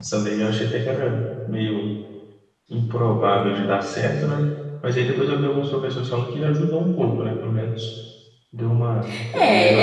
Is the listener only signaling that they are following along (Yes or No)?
No